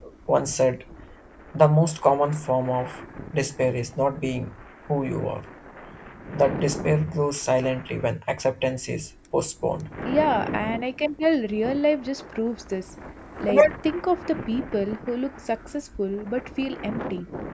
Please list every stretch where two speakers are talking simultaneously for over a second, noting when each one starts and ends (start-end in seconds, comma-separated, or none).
none